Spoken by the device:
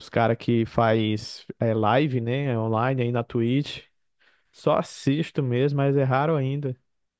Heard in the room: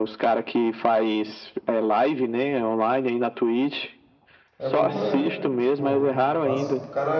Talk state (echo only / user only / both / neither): both